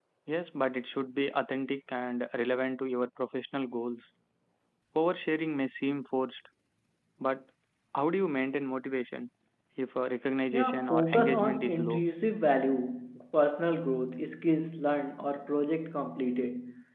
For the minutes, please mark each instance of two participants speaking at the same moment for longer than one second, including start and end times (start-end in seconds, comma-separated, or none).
10.5-12.0